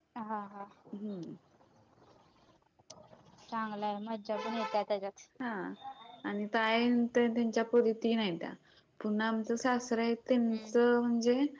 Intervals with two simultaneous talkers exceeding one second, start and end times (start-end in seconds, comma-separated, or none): none